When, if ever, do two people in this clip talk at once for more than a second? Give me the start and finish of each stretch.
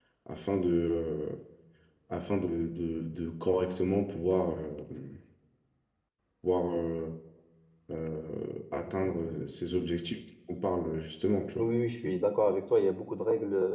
none

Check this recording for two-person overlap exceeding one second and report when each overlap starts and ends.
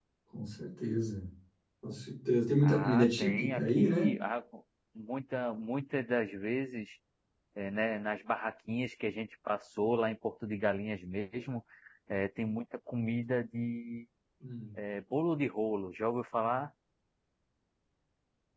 2.6-4.1

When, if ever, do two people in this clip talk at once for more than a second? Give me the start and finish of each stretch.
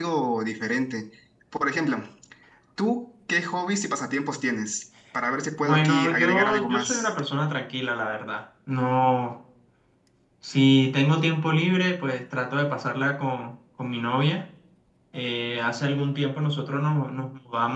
5.6-7.1

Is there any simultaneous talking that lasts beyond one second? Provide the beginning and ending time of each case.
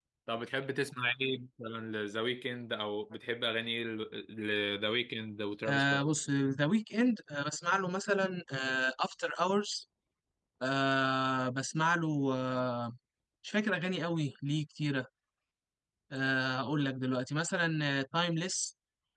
none

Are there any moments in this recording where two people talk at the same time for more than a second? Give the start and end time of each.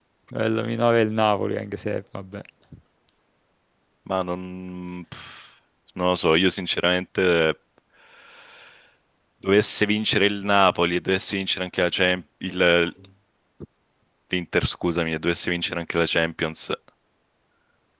none

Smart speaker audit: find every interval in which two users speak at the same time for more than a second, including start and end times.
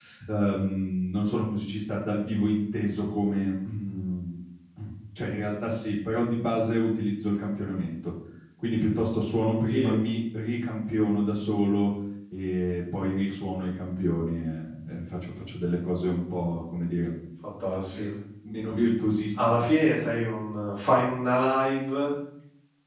none

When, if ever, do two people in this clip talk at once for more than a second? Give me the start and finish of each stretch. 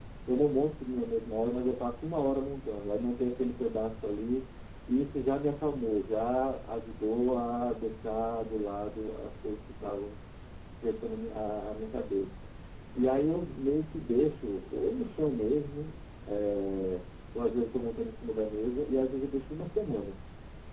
none

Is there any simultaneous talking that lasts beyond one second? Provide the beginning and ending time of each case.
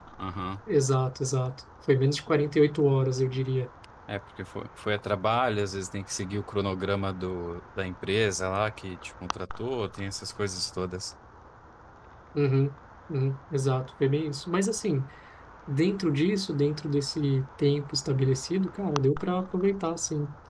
none

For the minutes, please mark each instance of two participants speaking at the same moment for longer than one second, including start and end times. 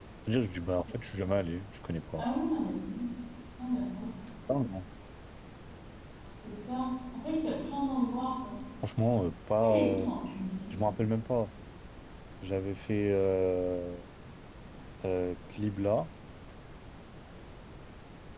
none

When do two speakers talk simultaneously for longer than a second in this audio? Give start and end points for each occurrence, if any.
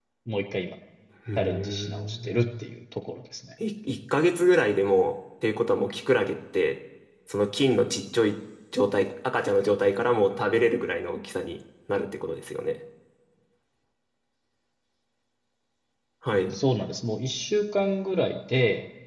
1.4-2.8

